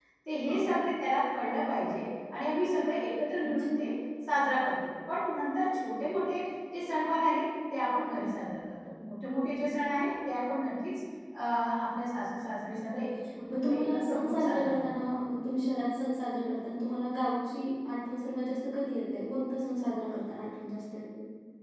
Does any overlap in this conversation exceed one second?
Yes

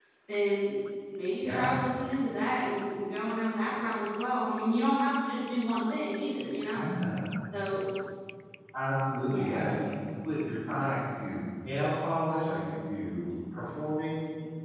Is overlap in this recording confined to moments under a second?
Yes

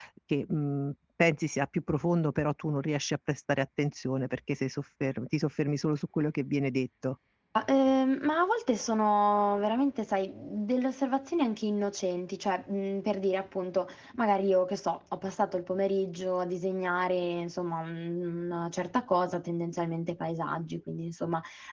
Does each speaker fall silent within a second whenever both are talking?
Yes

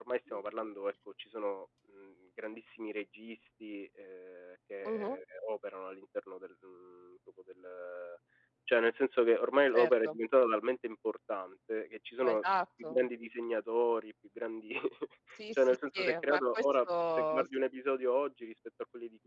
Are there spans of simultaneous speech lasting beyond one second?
Yes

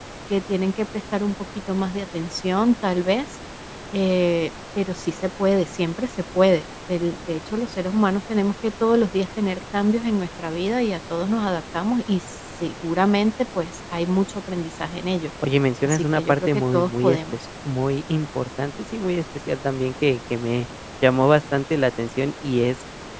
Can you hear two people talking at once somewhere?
Yes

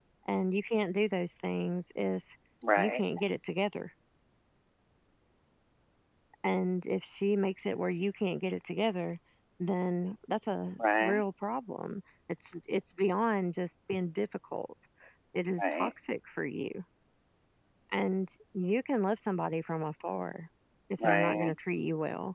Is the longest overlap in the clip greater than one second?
No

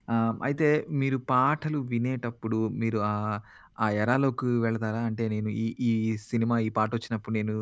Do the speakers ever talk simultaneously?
No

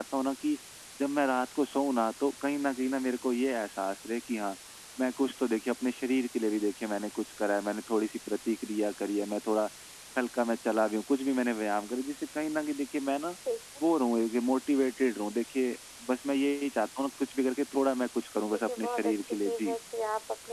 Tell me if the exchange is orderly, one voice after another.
No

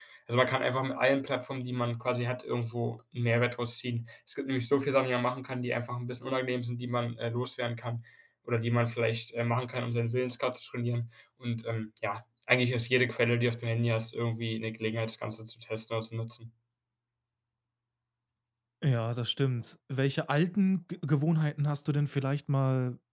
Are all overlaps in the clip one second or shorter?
Yes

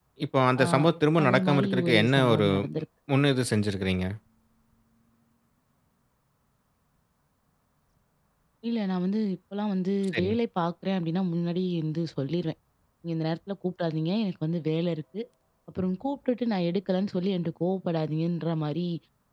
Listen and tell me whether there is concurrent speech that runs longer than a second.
Yes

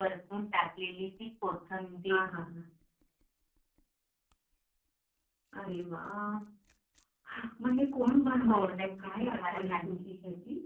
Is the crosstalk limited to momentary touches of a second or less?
No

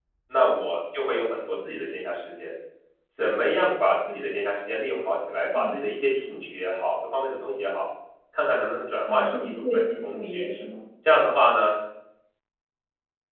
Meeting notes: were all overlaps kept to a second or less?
No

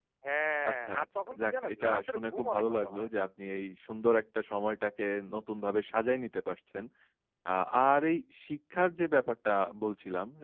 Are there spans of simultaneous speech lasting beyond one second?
Yes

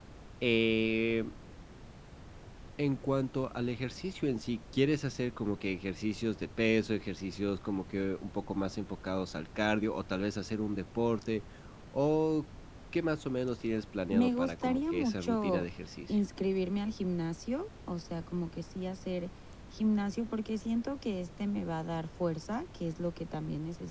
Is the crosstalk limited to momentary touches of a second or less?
No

